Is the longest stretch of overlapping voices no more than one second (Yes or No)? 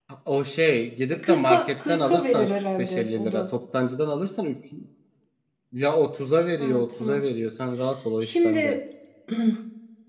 No